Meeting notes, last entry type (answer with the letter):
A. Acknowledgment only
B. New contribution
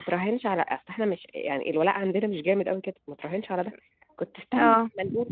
A